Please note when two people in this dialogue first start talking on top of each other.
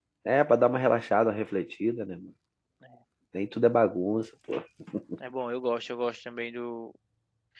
none

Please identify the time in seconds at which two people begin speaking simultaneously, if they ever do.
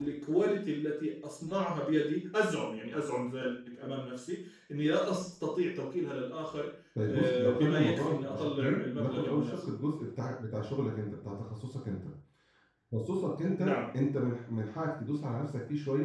7.0 s

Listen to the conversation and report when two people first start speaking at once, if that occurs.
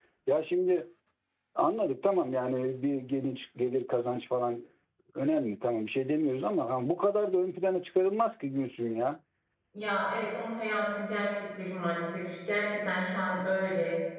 none

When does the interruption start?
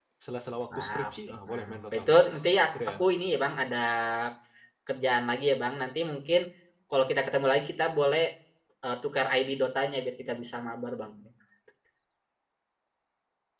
0.8 s

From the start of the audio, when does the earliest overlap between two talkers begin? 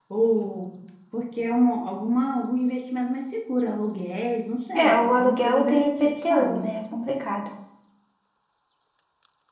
4.8 s

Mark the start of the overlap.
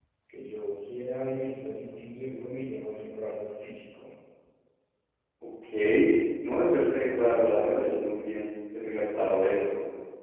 none

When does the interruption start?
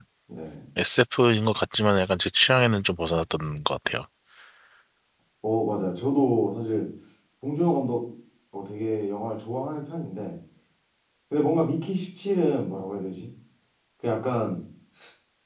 none

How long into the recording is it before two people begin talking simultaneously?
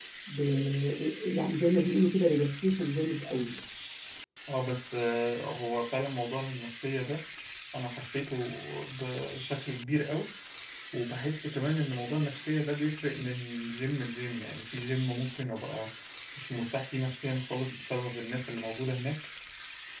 none

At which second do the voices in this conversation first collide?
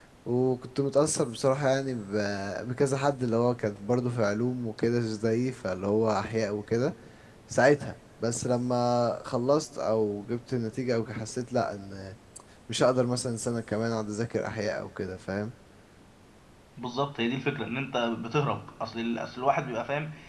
none

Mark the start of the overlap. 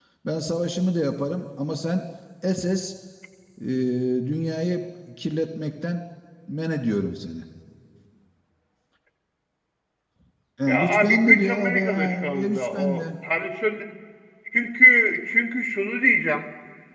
10.7 s

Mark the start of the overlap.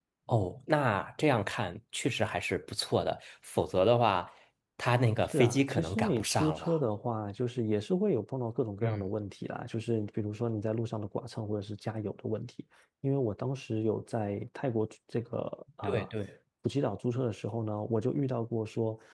5.3 s

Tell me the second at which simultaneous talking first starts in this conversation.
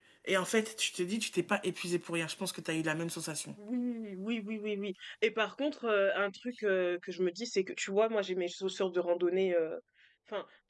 none

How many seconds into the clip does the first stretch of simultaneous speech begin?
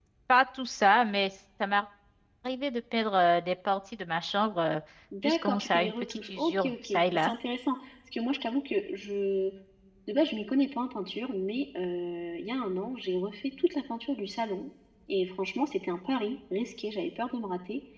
5.2 s

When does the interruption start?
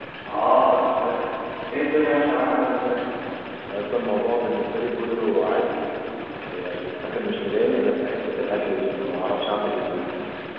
none

